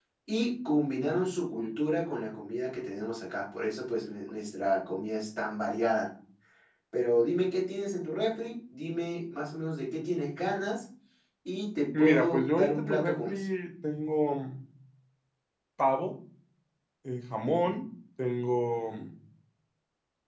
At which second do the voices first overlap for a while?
12.0 s

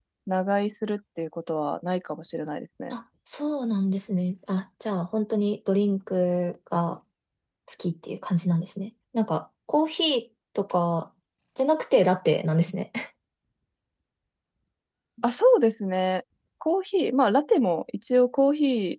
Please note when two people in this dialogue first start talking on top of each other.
none

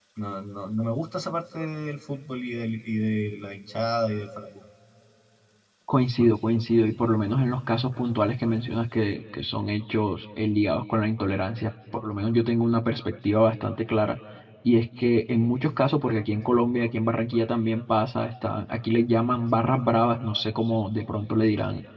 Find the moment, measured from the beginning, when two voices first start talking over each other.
none

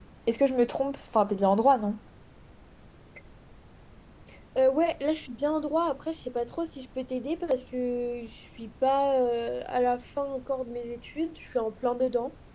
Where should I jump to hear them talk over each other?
none

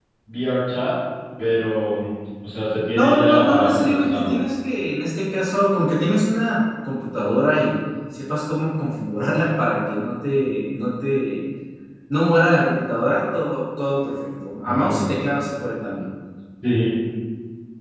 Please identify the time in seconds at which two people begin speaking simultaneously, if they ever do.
2.9 s

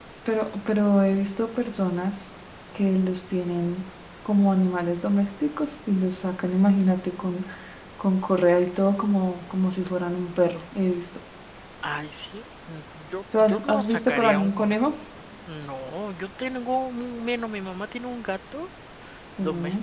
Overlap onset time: 13.4 s

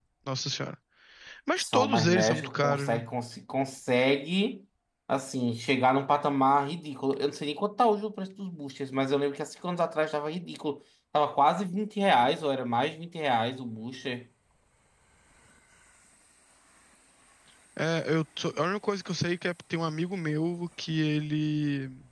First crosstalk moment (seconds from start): 1.6 s

